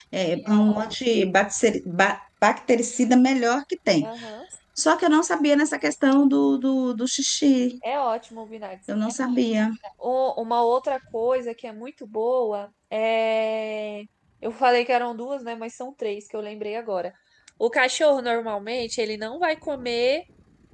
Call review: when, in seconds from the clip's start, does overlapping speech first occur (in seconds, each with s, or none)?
none